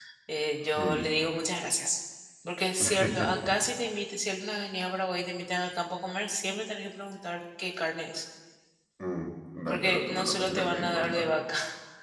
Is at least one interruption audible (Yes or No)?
Yes